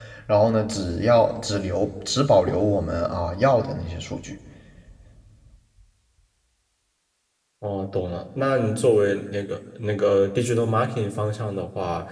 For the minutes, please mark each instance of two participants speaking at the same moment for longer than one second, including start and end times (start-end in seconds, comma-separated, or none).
none